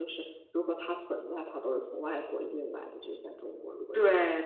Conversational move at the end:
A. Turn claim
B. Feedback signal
A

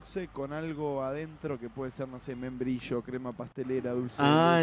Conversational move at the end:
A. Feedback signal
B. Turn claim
B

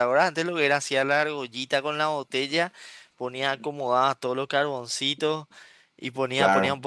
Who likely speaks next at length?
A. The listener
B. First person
B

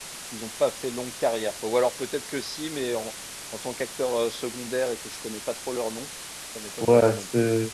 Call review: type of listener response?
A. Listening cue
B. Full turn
B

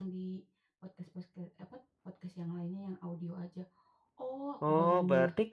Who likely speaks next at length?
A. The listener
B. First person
A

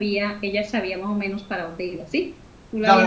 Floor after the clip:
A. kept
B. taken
B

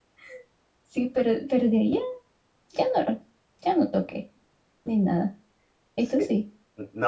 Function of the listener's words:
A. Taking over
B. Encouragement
A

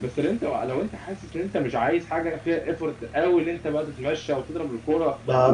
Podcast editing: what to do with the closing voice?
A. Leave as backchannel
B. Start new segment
B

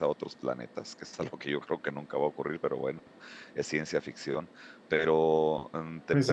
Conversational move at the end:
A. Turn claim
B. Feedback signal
A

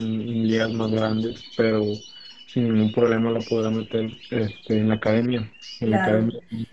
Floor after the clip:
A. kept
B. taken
B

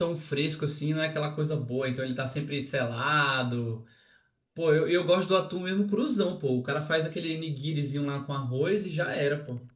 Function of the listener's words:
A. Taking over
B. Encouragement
A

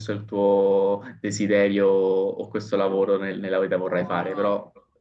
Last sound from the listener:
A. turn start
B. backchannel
B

